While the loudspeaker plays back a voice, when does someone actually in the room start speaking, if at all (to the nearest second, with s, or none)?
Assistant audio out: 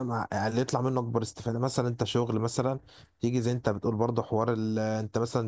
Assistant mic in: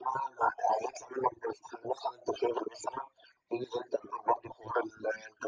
none